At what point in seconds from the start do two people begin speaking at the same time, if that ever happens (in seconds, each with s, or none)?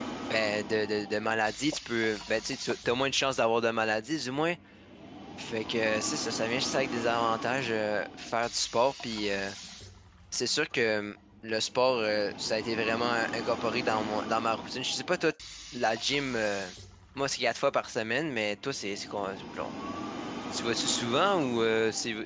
none